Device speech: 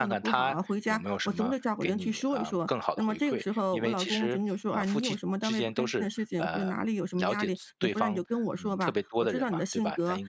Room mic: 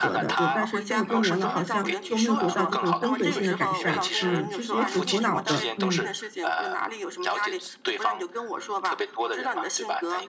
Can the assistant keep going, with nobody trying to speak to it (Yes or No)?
No